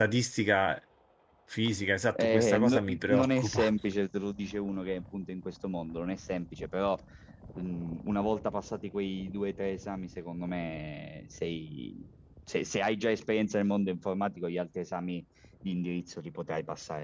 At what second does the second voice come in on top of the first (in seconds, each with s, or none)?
2.1 s